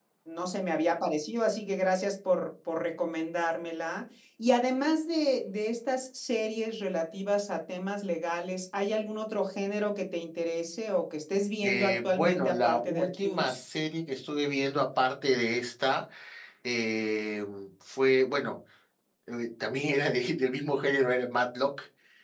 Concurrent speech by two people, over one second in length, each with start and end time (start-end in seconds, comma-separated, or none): 11.6-13.6